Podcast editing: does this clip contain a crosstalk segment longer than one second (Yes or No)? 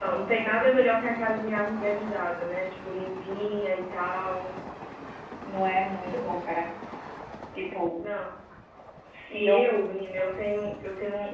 No